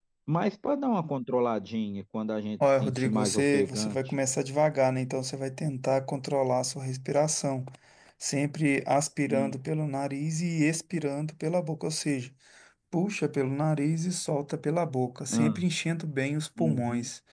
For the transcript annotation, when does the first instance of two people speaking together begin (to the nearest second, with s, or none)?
3 s